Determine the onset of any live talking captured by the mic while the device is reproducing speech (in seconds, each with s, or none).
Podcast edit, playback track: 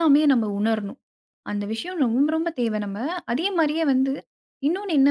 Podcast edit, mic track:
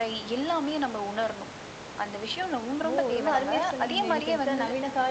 2.9 s